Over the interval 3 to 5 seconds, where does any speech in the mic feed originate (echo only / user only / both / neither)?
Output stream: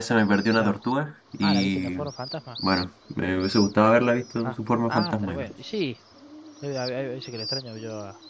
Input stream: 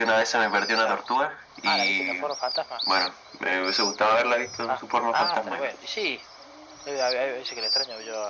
echo only